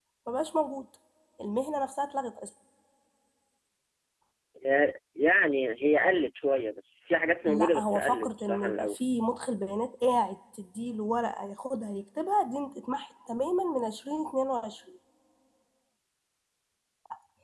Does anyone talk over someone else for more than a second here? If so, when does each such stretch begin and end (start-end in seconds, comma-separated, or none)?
7.5-9.0